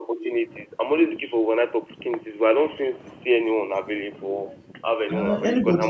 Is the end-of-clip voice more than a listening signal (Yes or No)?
Yes